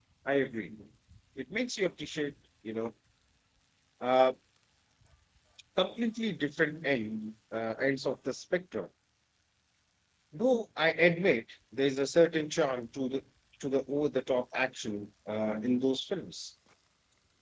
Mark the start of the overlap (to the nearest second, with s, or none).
none